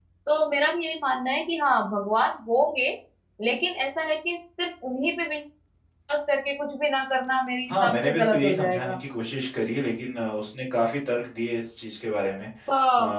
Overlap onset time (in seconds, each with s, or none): 7.7 s